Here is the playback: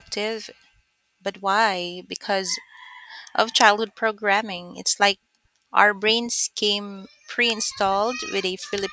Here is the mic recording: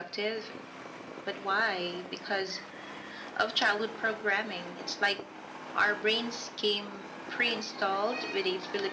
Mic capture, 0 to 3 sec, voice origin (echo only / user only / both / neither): echo only